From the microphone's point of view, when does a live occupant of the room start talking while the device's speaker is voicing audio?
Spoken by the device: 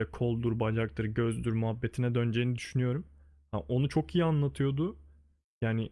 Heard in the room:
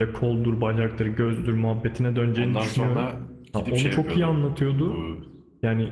2 s

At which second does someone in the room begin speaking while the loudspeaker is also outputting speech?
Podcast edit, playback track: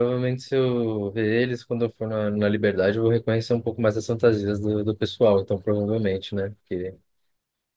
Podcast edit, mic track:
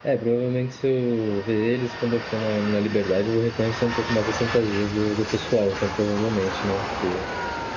none

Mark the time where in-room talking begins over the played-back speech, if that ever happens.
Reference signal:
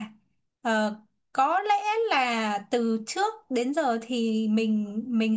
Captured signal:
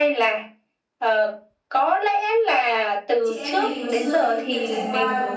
3 s

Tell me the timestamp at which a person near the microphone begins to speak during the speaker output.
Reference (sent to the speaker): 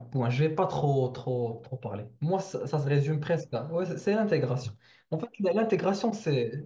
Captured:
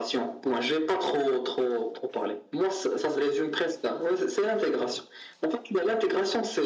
none

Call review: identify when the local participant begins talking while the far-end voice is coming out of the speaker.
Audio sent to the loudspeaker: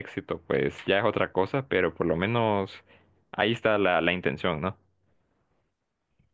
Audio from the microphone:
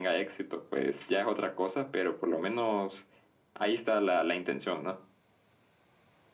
none

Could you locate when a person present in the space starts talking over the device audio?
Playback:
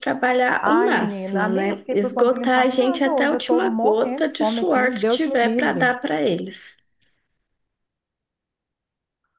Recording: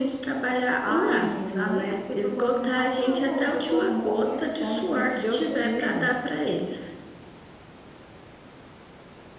none

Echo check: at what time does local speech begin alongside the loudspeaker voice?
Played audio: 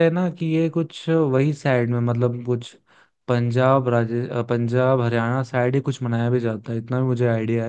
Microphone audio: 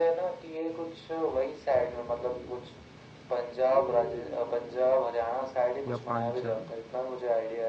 6 s

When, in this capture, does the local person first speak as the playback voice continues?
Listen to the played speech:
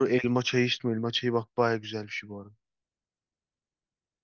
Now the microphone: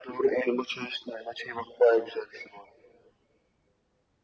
none

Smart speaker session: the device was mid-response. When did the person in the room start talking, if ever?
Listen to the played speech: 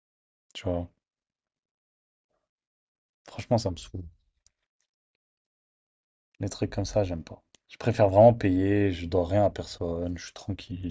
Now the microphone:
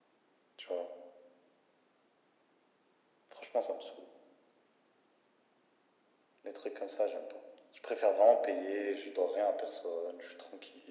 none

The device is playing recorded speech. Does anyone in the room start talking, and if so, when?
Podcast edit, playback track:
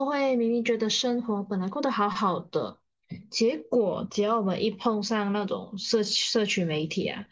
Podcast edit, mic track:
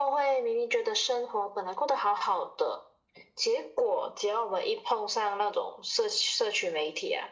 none

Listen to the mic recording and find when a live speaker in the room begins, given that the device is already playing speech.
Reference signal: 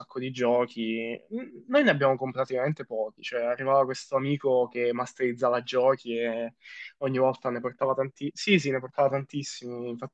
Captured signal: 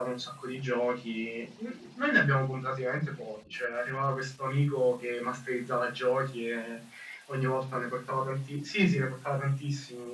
none

